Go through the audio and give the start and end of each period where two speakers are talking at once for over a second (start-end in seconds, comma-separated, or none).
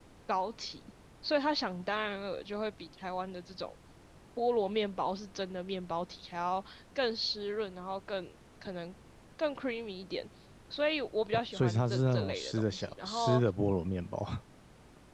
11.5-13.4